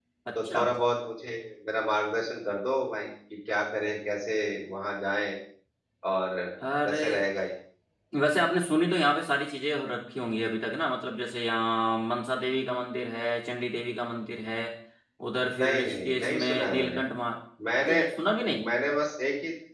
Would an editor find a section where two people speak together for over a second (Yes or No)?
Yes